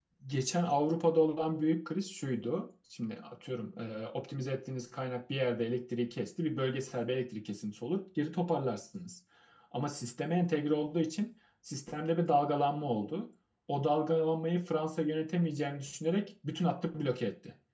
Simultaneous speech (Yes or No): No